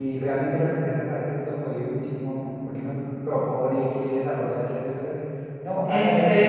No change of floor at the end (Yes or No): Yes